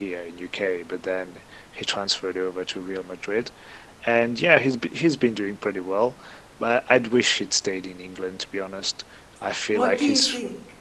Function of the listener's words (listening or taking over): taking over